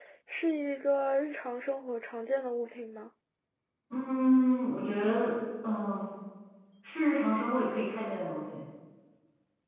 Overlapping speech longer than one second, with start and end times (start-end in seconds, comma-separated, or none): none